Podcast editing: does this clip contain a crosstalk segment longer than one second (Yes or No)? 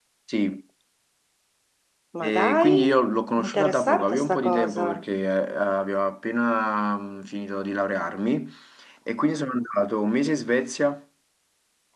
Yes